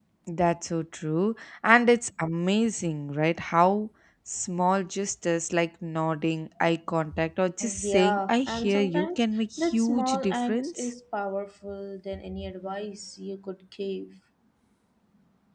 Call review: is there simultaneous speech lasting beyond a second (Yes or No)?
Yes